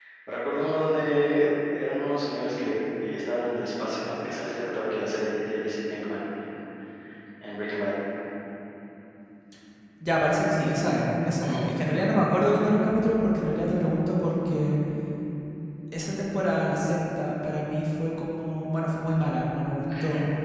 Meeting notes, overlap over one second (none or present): none